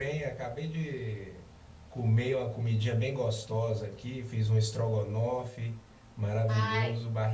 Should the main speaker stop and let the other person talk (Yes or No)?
No